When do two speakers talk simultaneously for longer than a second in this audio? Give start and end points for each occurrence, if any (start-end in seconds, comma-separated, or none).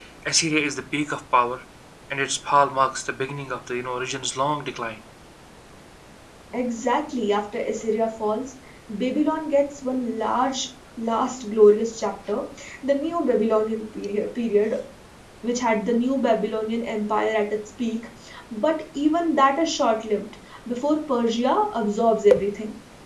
none